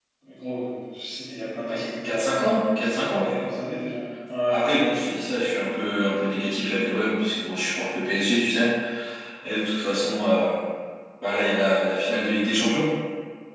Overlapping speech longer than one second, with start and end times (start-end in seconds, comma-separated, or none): 1.6-3.5